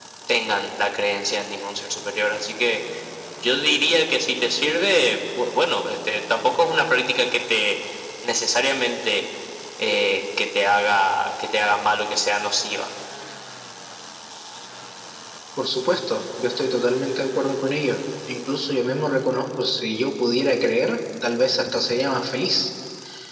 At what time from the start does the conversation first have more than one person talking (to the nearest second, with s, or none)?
none